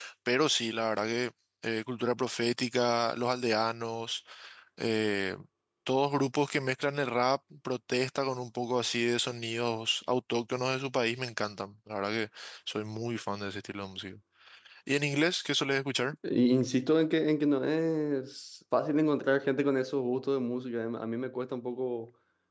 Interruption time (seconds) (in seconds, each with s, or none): none